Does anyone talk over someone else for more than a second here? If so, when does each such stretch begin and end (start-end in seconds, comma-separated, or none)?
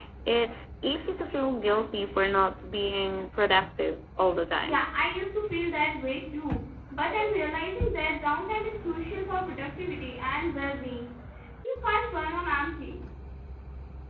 none